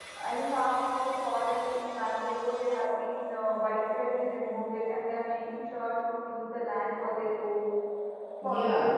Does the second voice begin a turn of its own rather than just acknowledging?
Yes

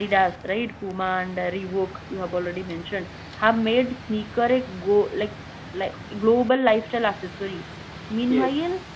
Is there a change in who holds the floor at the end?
No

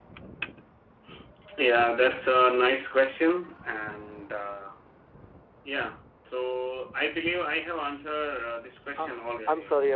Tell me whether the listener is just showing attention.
No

